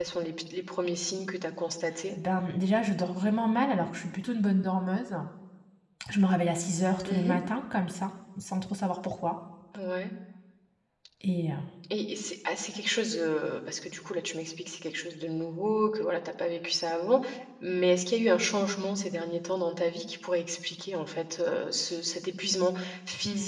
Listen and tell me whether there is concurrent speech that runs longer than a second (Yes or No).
No